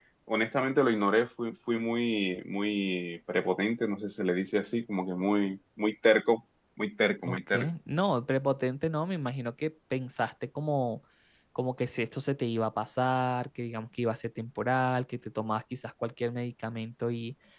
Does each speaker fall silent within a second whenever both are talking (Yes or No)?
Yes